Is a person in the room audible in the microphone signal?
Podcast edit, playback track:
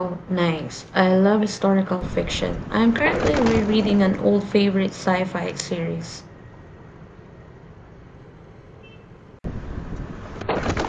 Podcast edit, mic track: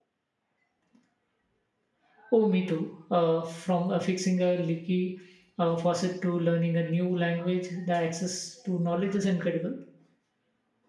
Yes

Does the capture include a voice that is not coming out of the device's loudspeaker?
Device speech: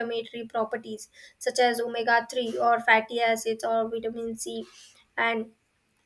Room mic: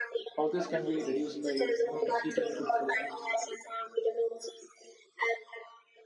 Yes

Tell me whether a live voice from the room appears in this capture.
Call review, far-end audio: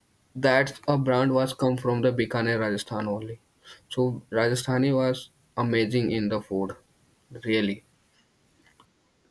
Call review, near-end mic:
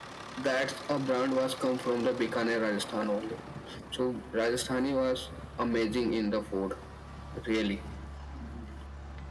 No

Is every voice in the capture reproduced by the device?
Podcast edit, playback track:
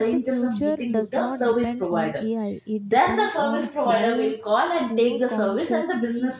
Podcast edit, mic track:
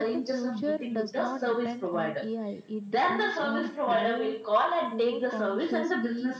Yes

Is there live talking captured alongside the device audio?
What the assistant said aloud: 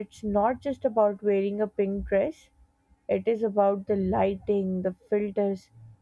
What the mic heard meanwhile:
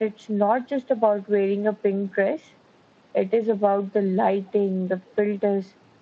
No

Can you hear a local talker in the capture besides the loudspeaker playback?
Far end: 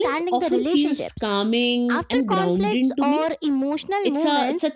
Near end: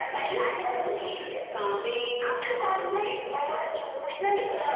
No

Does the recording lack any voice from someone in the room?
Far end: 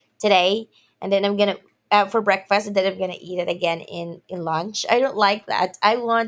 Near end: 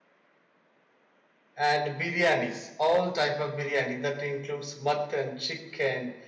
No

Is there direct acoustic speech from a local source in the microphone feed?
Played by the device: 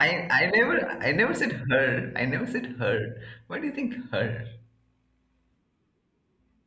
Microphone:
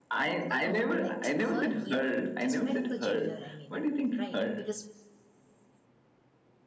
Yes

